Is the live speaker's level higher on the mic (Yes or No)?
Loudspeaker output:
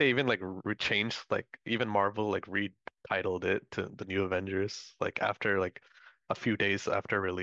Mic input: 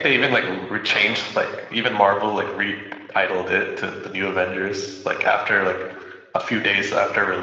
No